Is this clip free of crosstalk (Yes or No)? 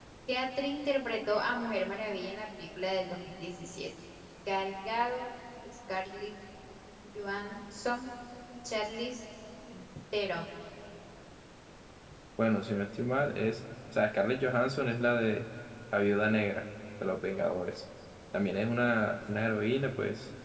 Yes